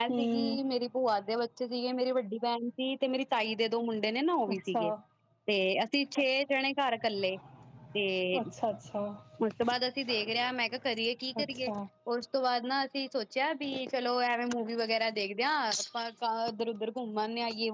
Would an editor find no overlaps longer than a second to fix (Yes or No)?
Yes